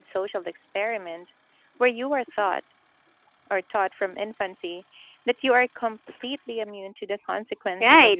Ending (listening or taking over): taking over